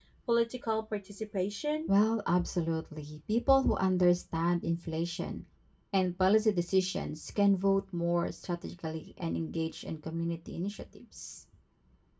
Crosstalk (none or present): none